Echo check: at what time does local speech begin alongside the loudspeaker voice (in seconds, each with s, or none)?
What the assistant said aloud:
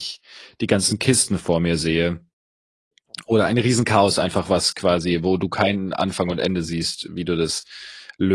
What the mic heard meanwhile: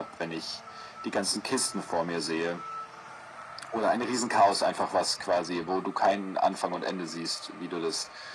none